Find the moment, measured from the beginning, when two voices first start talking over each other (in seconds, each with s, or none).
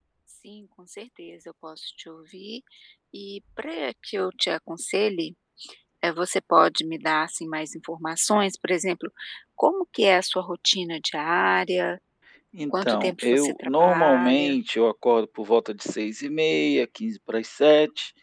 12.7 s